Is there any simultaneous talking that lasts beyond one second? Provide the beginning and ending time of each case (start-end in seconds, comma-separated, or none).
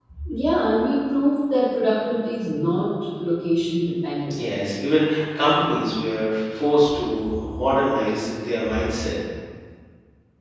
none